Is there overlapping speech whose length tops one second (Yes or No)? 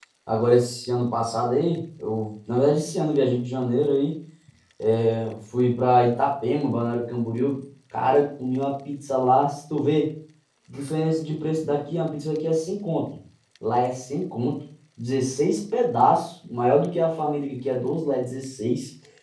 No